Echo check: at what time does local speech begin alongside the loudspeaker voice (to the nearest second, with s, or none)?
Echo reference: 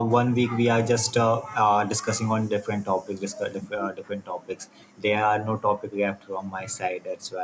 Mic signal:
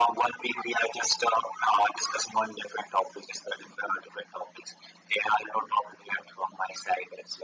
none